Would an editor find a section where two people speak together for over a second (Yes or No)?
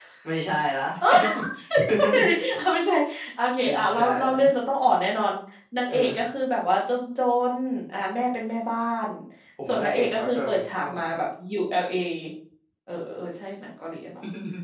Yes